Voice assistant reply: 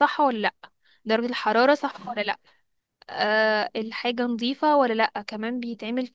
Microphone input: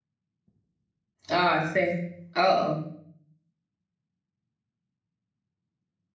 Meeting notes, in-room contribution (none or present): present